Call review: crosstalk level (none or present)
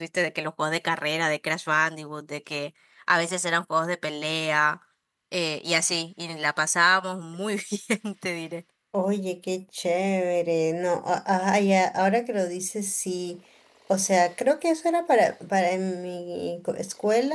none